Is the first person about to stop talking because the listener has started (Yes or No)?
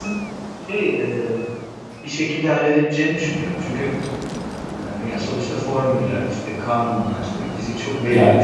Yes